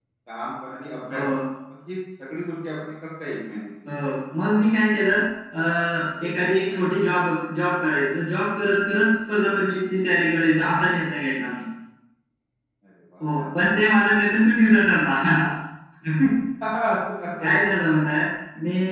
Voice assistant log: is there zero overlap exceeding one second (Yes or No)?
Yes